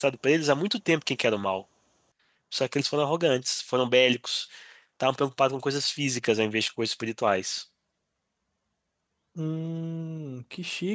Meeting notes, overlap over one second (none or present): none